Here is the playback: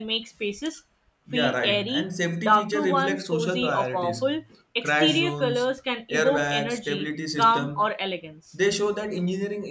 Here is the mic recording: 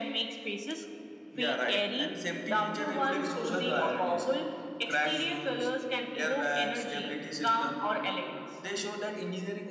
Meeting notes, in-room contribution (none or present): none